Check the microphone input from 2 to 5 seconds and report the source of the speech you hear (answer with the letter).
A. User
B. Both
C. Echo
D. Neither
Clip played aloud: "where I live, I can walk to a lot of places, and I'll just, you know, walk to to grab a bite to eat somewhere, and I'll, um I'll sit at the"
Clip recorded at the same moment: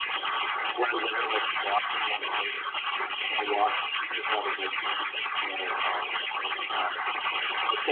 C